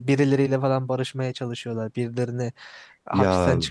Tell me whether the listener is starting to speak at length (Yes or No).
No